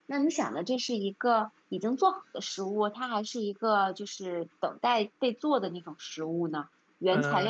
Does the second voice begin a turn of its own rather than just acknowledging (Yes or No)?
Yes